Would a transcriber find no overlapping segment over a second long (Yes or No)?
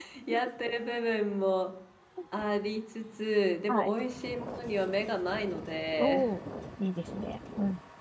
Yes